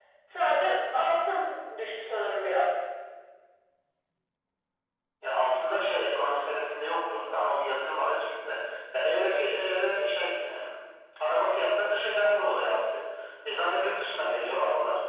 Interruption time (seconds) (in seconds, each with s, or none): none